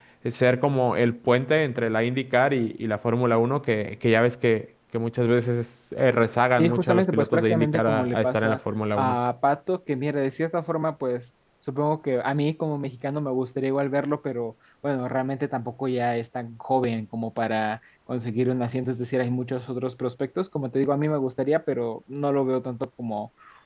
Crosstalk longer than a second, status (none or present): present